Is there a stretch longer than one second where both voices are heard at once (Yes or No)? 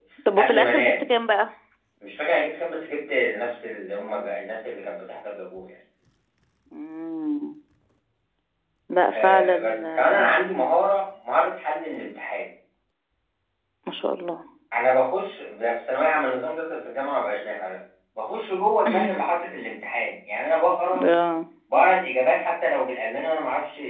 Yes